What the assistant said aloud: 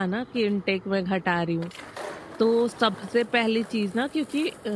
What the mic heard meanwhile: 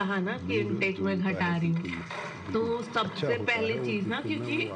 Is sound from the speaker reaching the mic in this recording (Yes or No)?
Yes